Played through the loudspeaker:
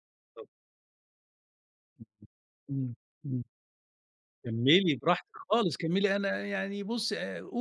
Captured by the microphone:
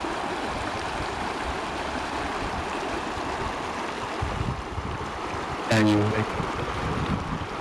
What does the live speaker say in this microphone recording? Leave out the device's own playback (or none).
أيوه، أيوه.